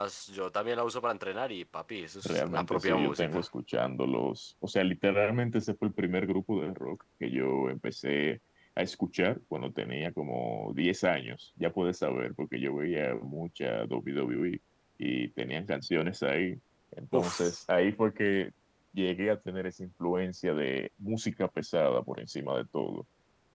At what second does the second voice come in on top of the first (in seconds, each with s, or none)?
2.2 s